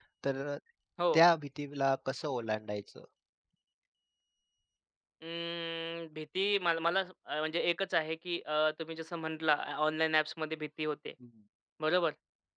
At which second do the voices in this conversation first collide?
none

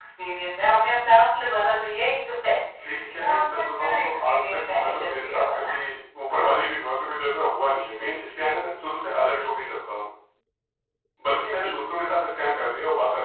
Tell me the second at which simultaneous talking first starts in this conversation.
3 s

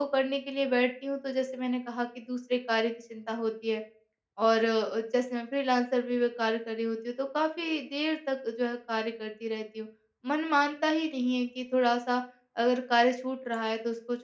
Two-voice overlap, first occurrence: none

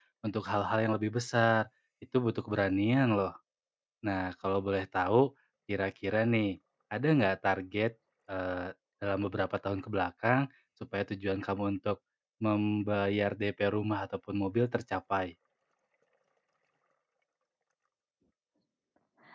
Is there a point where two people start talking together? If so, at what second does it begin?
none

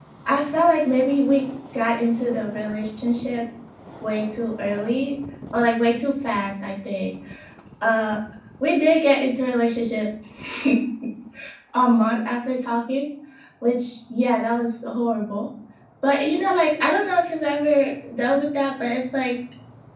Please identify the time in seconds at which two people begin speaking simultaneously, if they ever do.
none

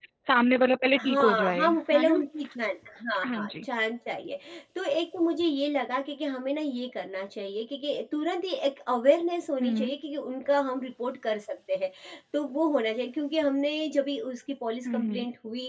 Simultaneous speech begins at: 1 s

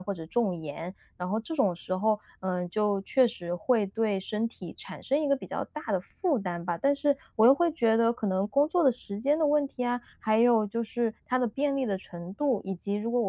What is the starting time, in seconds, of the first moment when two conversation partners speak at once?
none

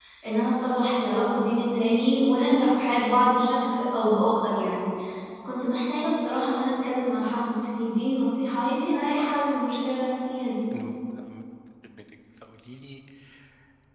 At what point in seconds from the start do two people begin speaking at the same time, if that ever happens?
none

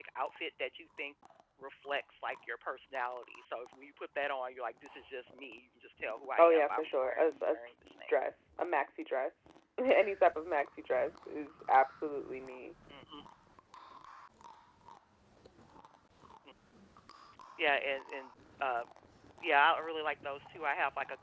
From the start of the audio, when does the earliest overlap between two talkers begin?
6 s

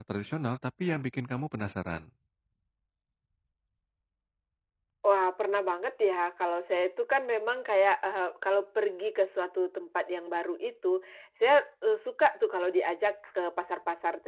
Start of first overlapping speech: none

